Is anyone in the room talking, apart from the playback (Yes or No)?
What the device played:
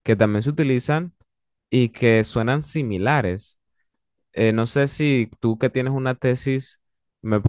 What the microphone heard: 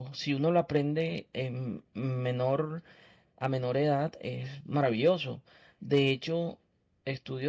Yes